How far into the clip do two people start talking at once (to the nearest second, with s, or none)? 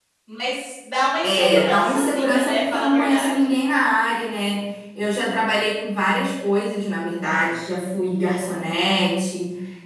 1 s